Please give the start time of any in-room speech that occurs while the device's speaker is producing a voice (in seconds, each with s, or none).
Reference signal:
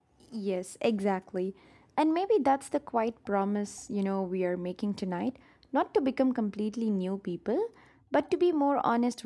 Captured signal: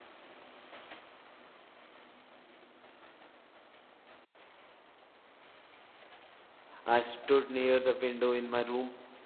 6.8 s